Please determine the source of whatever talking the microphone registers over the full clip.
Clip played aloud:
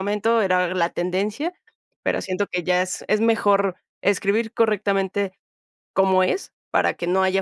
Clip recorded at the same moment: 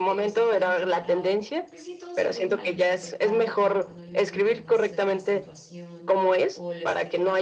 both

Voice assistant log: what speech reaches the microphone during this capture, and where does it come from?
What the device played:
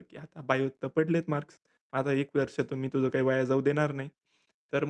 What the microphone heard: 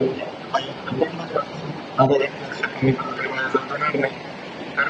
echo only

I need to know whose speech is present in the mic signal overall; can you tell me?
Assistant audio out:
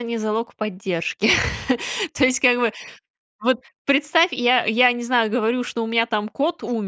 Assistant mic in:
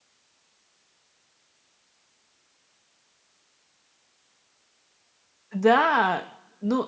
user only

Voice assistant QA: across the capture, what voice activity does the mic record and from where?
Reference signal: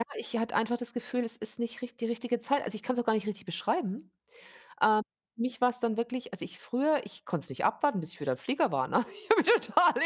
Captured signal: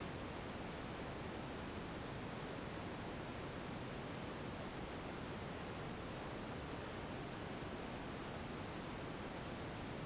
neither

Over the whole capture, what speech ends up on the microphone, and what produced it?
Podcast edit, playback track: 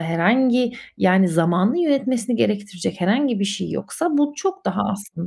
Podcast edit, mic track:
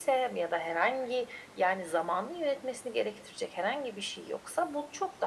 echo only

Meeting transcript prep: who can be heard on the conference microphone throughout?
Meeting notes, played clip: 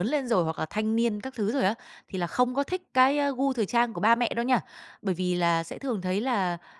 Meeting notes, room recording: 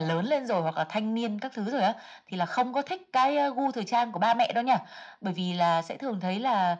echo only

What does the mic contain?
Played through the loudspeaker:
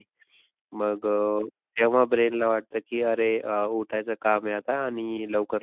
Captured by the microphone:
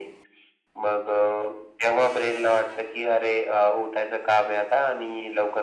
echo only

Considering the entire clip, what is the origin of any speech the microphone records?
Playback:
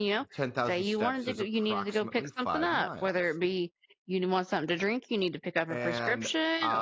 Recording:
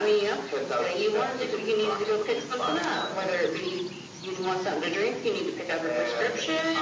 echo only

